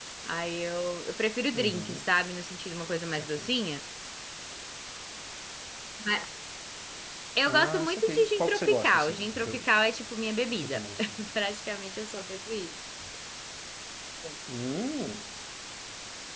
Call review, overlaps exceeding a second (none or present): present